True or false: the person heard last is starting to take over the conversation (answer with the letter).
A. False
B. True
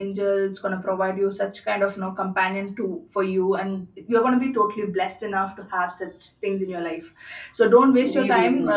A